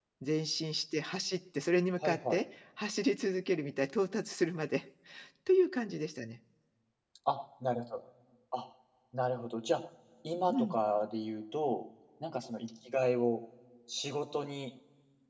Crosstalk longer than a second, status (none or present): none